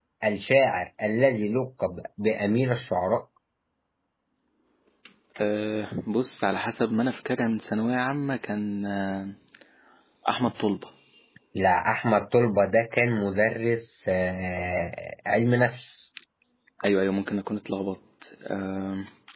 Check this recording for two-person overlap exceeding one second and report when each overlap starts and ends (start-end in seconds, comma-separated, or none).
none